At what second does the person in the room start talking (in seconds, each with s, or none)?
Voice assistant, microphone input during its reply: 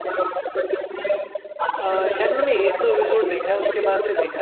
1.8 s